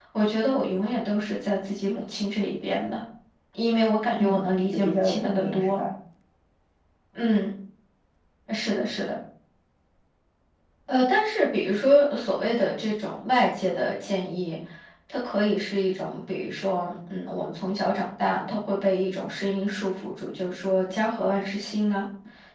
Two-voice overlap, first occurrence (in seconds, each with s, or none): 4.2 s